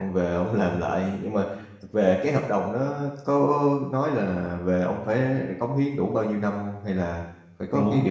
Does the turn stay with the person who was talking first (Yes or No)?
No